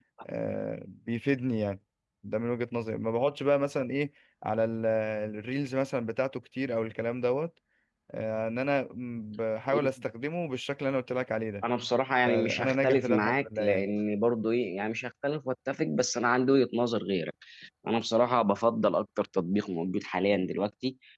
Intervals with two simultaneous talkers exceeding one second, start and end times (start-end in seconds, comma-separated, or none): 12.3-13.8